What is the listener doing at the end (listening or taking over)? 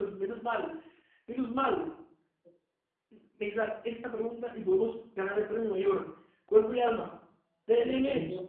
taking over